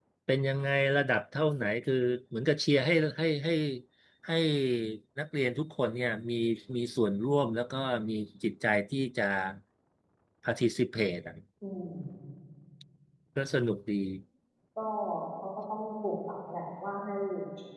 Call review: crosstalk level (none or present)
none